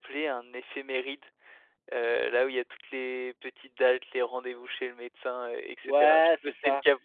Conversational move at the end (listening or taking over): taking over